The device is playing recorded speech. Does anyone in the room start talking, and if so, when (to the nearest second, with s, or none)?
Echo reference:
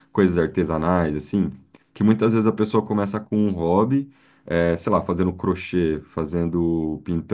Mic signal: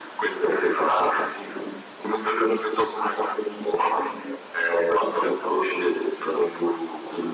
none